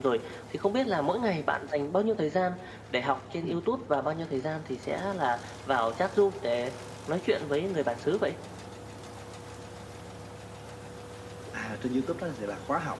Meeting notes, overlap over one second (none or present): none